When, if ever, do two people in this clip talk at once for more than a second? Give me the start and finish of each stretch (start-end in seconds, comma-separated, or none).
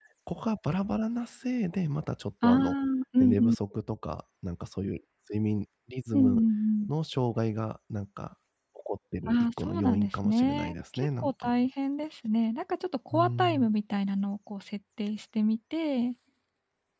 9.3-11.5